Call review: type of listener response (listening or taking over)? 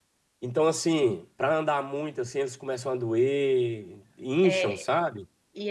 taking over